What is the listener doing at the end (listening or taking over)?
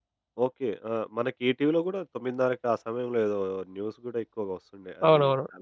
taking over